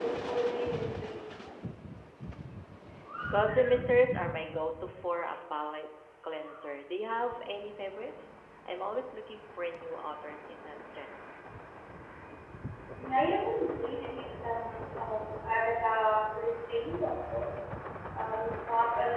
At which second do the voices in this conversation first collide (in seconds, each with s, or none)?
none